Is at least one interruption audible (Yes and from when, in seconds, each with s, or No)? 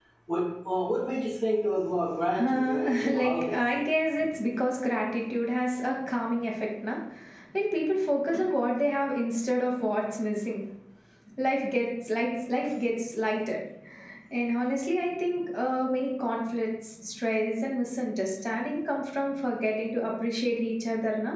Yes, from 2.3 s